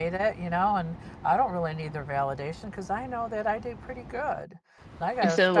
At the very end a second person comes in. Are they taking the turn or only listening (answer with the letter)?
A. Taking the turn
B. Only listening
B